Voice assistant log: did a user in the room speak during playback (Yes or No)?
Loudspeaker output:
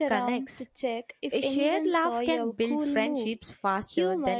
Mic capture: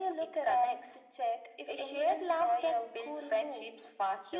No